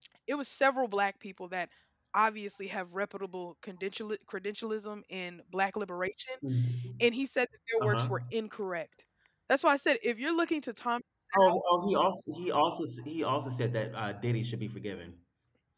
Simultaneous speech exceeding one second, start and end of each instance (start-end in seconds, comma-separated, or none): none